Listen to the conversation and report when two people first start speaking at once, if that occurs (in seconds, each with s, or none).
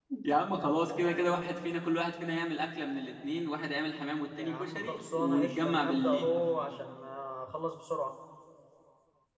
4.3 s